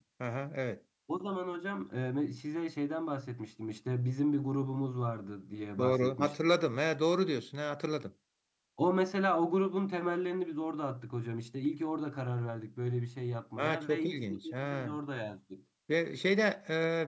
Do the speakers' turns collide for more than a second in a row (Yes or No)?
Yes